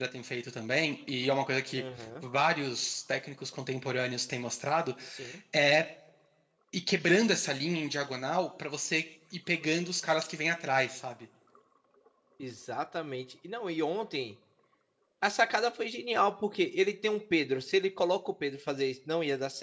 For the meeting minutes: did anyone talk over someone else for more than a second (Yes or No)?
No